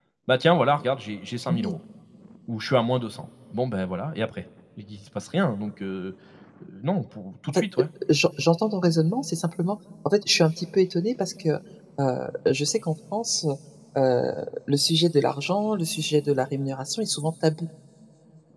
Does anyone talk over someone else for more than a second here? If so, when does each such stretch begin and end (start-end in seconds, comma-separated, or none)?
none